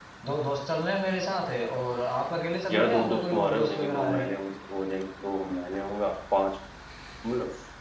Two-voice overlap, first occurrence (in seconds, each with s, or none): 2.7 s